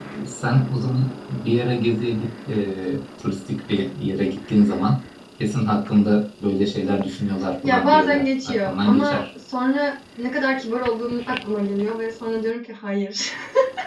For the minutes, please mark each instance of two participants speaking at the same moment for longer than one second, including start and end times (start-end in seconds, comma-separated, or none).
7.6-9.2